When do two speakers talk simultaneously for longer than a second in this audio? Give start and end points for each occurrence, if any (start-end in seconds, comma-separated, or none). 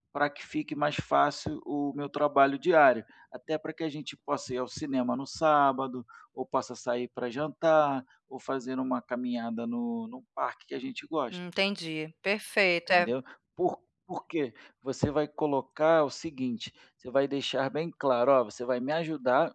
none